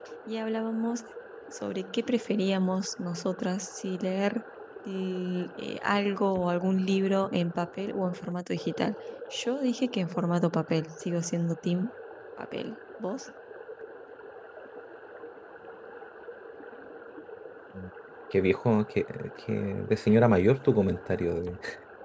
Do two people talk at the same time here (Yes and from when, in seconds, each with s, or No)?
No